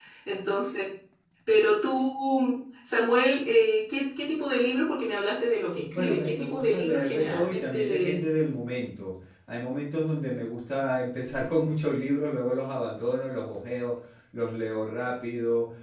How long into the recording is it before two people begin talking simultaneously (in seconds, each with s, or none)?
5.9 s